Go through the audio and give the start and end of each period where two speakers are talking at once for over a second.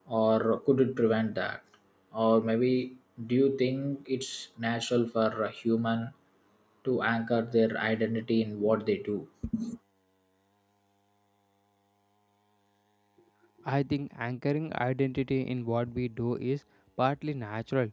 none

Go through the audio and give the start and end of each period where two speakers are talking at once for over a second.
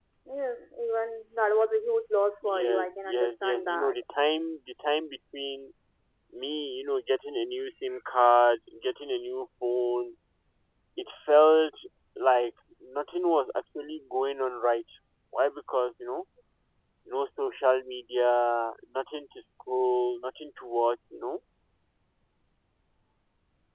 2.4-4.0

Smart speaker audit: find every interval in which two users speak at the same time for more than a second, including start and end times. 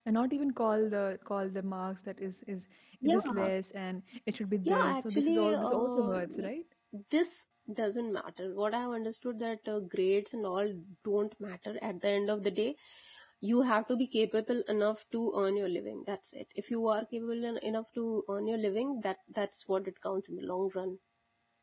4.7-6.2

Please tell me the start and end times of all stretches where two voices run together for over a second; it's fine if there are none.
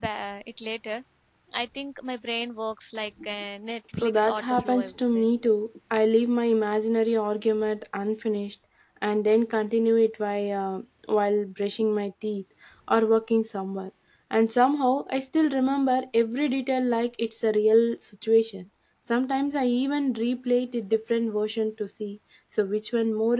4.0-5.3

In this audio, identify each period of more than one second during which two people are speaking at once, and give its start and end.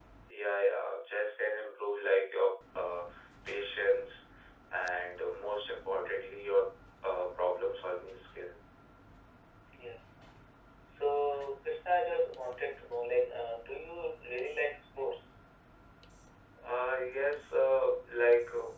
none

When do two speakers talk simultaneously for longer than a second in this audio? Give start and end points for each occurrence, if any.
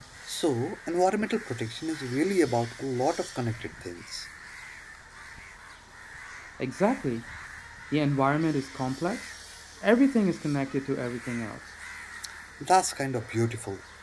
none

